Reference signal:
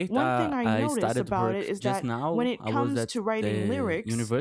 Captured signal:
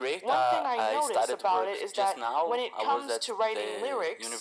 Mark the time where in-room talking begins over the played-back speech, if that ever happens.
none

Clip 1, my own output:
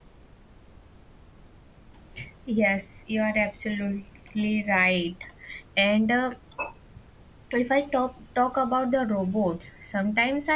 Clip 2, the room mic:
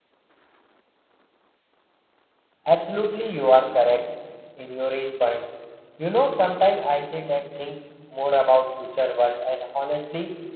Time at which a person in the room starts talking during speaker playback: 3 s

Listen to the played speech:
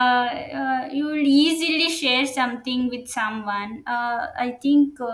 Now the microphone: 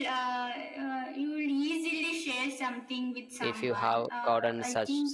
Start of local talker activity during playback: 3 s

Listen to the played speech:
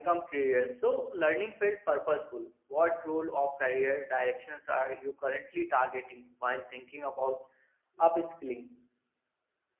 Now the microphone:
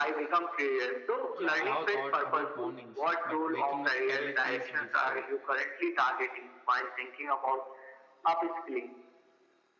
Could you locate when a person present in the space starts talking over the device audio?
1 s

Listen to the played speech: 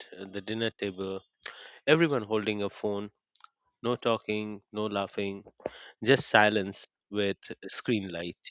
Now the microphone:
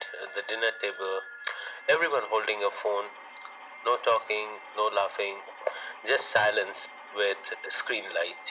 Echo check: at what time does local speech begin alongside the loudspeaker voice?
none

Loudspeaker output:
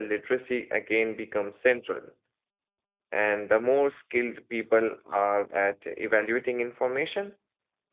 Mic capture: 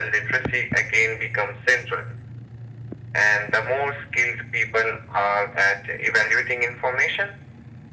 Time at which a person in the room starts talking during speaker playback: none

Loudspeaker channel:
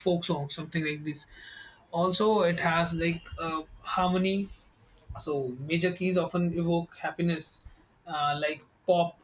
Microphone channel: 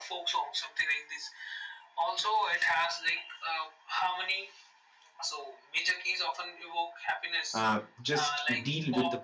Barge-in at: 8 s

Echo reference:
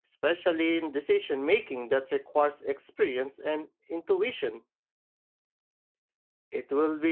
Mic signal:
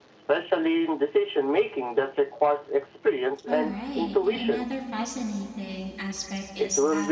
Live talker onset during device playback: 3 s

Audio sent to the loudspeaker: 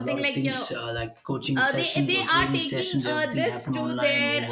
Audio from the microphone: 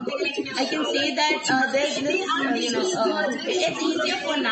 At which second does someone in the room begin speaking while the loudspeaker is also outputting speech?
1 s

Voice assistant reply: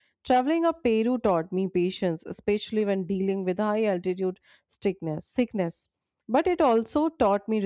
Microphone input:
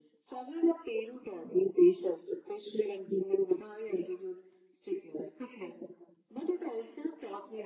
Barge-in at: none

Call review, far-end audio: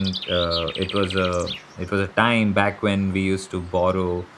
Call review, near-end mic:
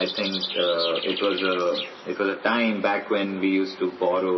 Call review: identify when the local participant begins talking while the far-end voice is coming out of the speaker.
none

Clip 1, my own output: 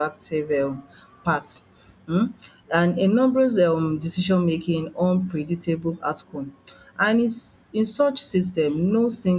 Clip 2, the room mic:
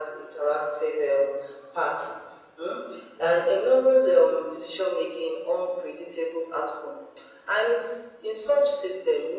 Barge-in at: none

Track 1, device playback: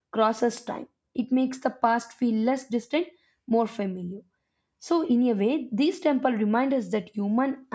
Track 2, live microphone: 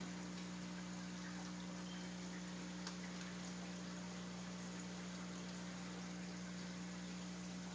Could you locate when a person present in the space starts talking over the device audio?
none

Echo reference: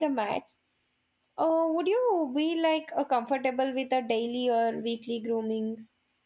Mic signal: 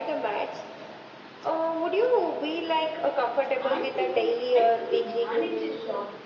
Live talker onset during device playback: 4 s

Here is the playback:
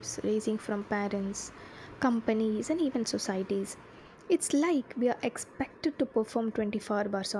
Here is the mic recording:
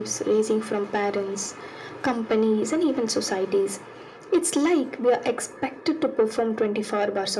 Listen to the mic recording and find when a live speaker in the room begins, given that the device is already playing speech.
none

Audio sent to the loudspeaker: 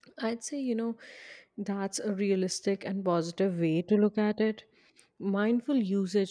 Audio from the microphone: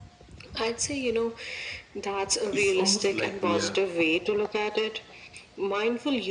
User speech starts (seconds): 3 s

